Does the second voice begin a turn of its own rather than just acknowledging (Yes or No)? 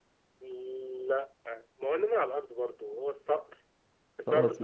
No